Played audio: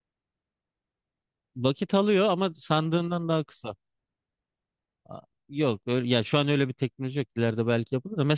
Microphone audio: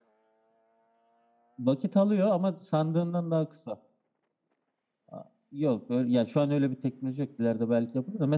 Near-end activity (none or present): none